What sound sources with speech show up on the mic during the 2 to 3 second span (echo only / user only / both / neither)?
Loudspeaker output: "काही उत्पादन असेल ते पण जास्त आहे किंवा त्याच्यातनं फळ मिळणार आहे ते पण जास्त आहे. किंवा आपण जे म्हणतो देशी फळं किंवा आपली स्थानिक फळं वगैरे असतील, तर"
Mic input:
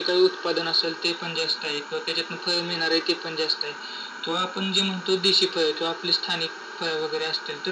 echo only